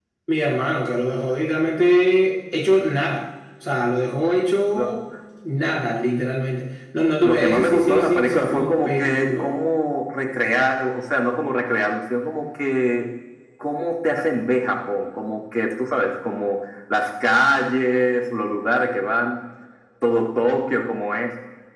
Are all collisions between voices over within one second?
No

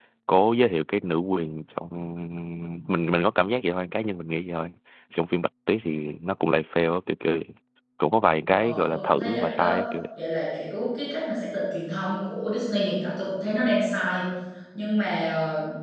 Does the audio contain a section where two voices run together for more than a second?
Yes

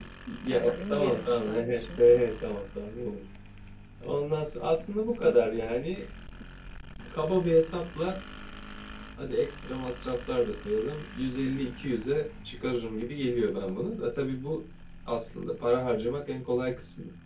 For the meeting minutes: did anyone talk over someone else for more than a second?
Yes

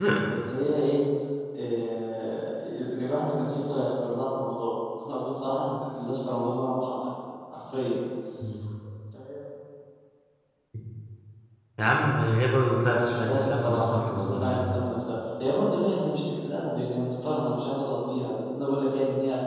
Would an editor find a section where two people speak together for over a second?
Yes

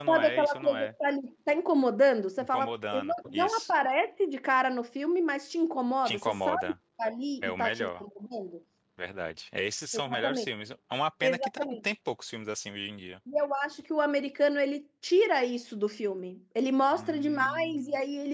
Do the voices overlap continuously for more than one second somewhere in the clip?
Yes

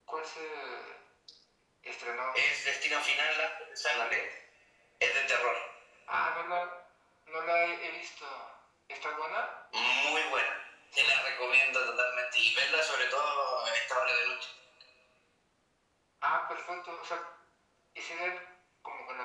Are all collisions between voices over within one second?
Yes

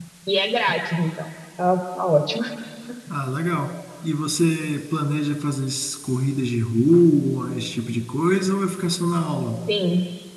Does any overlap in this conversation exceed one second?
No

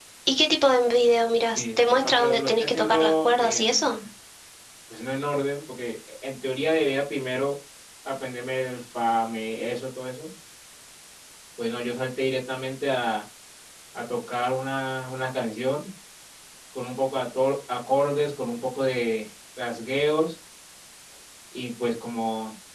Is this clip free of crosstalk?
No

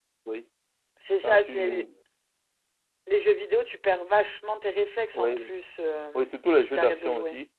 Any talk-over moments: Yes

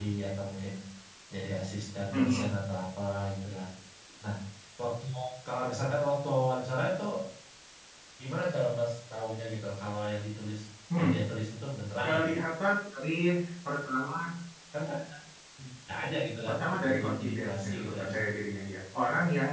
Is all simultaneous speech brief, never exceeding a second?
No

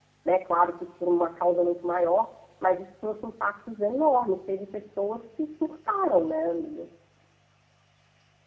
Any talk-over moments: No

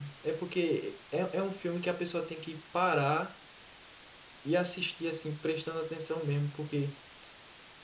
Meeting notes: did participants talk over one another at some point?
No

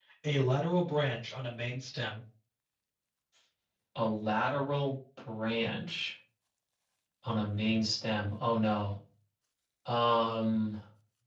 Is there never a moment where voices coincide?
Yes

